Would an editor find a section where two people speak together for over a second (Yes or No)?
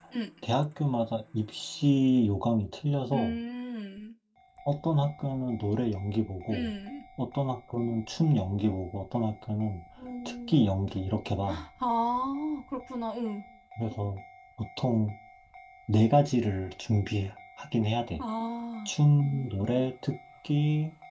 No